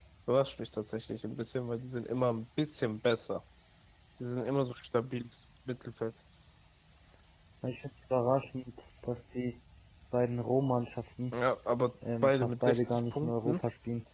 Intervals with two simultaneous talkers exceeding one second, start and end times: 12.2-13.6

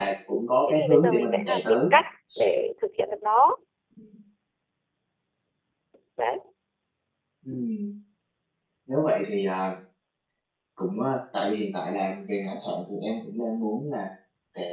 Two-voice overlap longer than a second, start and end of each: 0.7-1.9

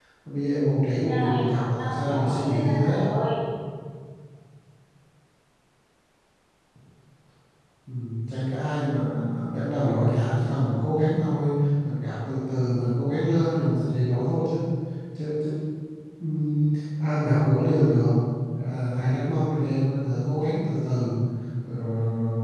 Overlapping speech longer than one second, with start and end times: 1.1-3.0

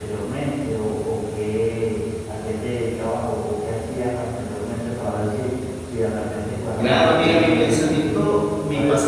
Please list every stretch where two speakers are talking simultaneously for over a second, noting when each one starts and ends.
6.8-8.2

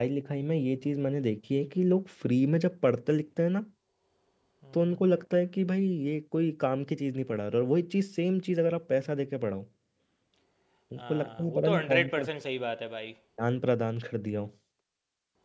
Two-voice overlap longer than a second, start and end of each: 11.0-12.2

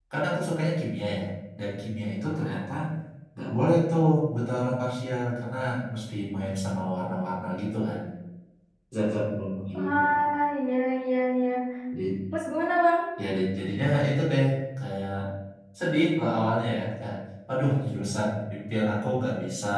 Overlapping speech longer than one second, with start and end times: none

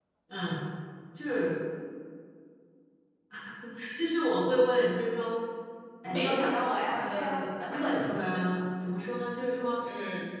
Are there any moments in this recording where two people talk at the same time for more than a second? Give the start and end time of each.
6.9-8.6

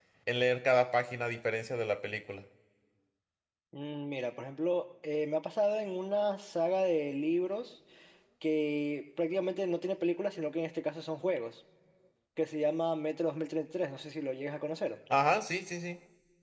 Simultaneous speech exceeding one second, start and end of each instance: none

